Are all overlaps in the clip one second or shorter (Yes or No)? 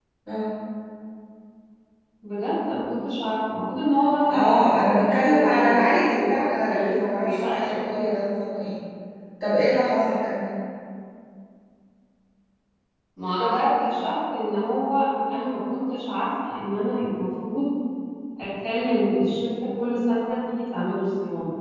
No